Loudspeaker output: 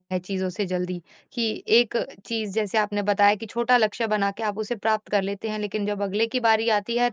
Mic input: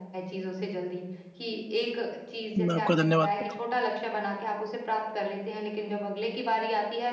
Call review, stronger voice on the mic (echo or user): user